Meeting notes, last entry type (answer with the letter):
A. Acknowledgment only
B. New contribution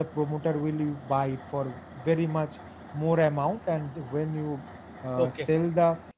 A